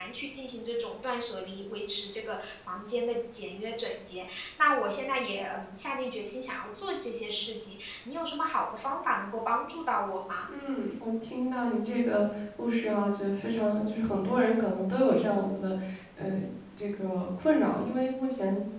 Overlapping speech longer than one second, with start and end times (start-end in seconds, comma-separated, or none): none